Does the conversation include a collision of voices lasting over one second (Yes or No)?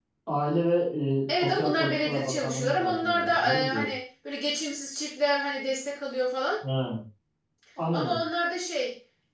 Yes